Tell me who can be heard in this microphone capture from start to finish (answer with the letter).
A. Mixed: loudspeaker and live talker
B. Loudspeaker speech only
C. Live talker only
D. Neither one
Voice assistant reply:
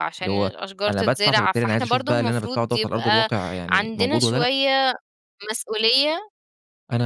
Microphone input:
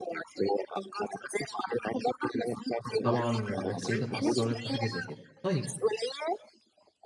A